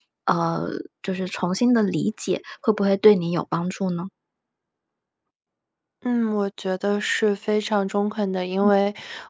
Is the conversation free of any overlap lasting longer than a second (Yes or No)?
Yes